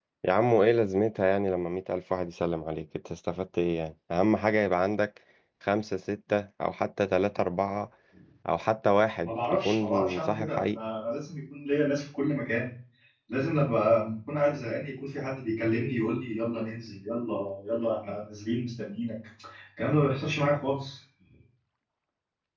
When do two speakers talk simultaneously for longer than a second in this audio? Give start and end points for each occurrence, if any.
9.2-10.8

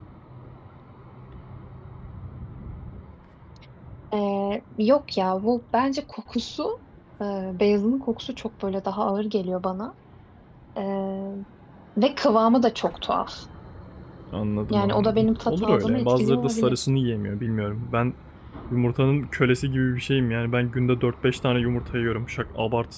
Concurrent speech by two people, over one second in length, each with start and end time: 14.7-16.9

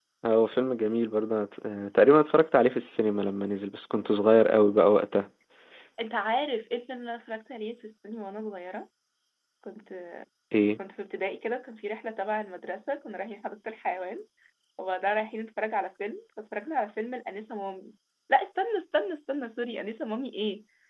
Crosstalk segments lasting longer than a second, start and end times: none

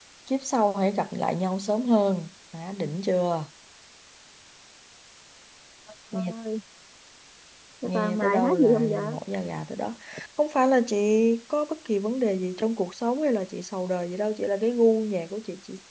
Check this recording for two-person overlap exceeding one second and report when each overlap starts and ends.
7.8-9.2

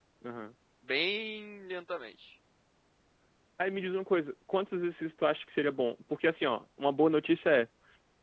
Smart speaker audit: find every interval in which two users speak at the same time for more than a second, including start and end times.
none

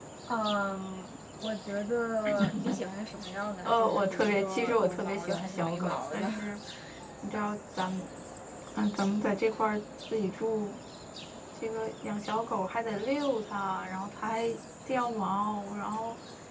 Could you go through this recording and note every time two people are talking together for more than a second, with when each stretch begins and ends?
3.6-6.3

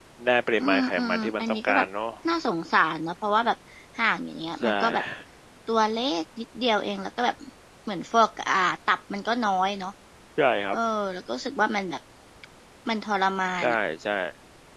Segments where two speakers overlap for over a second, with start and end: 0.6-1.9

